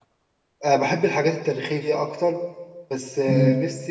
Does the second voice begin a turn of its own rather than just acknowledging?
No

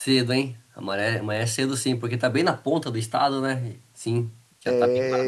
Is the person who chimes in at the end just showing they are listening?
No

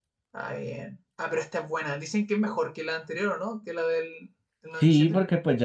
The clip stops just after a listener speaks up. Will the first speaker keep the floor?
No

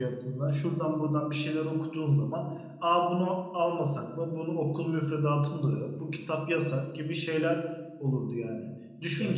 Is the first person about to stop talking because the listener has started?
No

